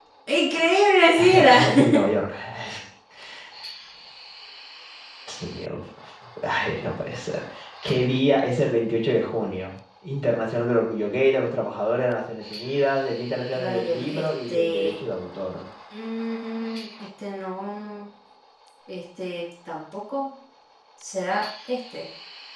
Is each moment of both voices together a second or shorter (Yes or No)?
No